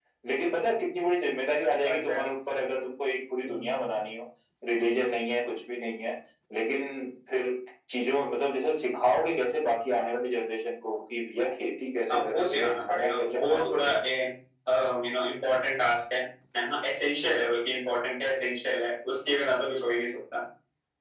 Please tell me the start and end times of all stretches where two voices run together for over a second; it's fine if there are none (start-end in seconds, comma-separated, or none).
12.1-13.9